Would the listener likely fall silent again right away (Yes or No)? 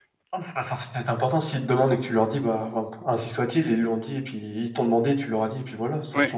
No